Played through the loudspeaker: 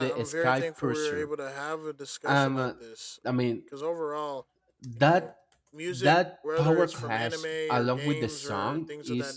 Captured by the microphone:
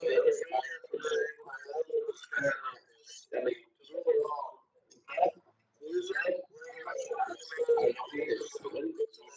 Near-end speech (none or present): none